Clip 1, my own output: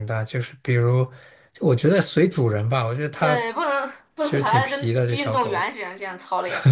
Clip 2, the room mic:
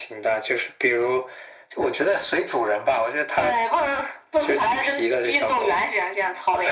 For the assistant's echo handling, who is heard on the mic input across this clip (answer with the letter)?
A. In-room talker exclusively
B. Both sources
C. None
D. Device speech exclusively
D